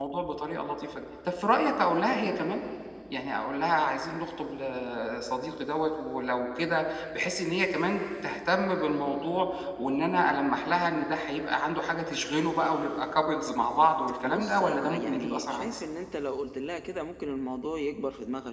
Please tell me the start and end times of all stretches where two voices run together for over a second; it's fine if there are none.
14.2-15.8

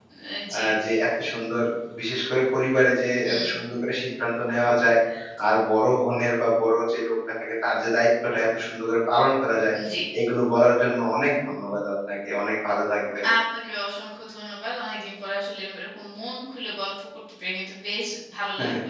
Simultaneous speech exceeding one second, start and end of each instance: none

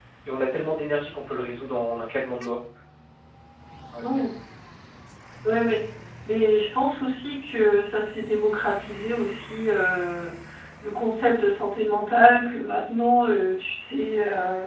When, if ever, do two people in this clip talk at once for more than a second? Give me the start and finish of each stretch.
none

